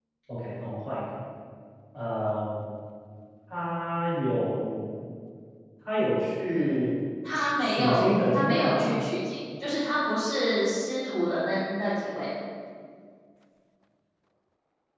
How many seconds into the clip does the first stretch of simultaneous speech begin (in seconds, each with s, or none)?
7.6 s